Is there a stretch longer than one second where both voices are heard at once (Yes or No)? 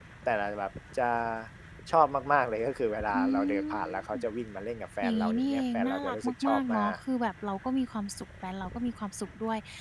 Yes